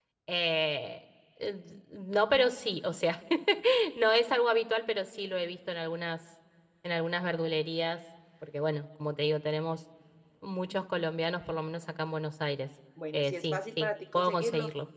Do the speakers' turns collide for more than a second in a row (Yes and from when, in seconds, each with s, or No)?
Yes, from 13.0 s